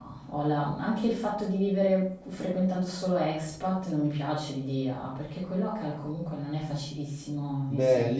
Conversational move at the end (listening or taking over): taking over